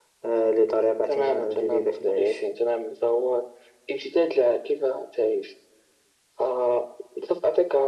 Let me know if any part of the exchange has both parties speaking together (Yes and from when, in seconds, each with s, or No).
Yes, from 1.1 s